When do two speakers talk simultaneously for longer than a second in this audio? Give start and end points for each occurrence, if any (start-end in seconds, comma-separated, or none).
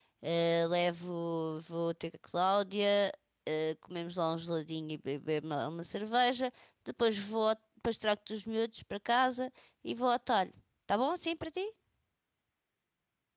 none